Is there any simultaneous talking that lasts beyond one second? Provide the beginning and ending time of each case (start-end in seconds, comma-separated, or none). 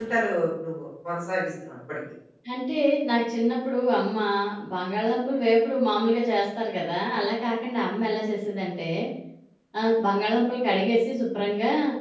none